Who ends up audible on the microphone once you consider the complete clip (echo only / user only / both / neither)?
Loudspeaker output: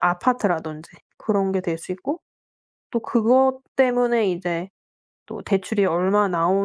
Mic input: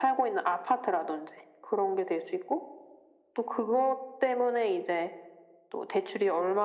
echo only